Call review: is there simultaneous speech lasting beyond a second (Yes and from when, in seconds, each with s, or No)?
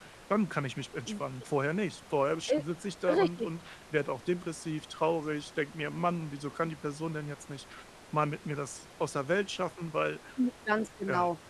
No